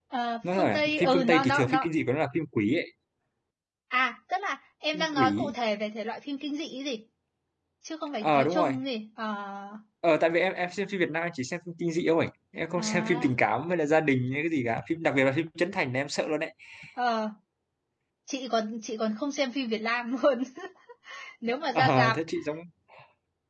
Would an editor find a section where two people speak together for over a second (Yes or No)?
Yes